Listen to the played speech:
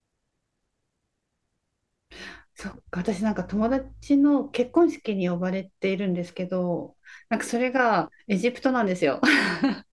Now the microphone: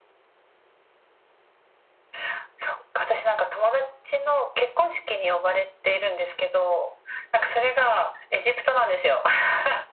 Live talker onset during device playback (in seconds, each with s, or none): none